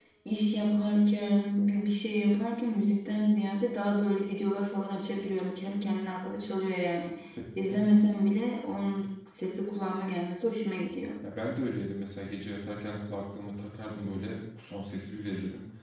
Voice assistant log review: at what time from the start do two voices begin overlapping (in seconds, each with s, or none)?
none